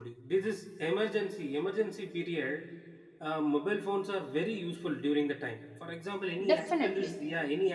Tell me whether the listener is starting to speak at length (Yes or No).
No